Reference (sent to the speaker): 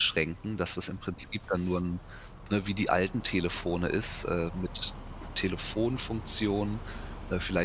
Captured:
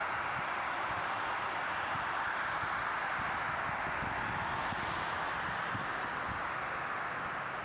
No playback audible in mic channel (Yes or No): Yes